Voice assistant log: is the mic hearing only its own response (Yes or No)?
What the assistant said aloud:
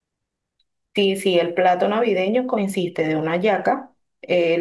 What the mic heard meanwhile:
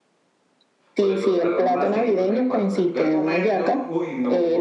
No